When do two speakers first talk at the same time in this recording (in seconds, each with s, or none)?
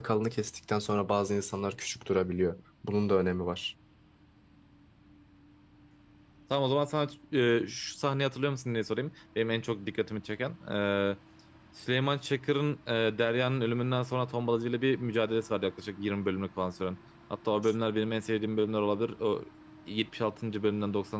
none